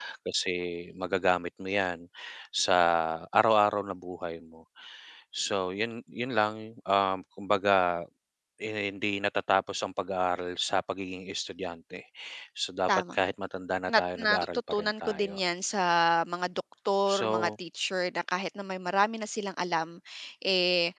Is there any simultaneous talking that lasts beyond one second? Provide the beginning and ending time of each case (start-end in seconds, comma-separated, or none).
13.9-15.4